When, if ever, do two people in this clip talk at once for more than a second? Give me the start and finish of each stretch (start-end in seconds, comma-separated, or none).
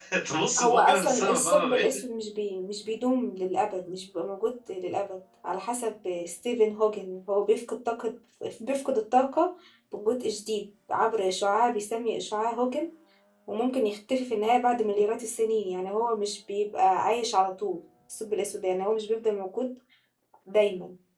0.6-1.8